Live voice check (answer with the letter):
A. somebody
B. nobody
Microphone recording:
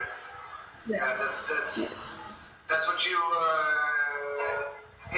A